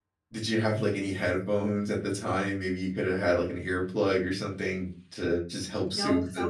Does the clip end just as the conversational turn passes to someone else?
Yes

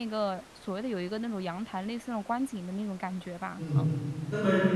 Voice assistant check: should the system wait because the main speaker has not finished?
No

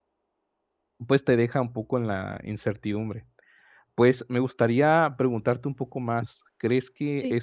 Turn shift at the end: No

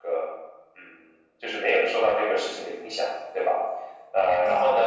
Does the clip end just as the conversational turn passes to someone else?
No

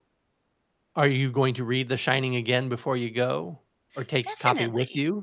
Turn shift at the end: Yes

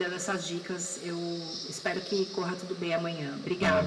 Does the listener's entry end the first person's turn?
Yes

